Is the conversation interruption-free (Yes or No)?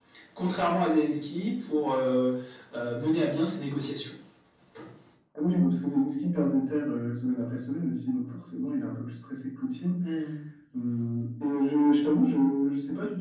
Yes